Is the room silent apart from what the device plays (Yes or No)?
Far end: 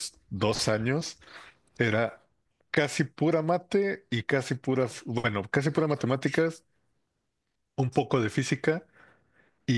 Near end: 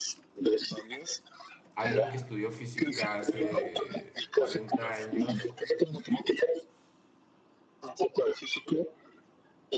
No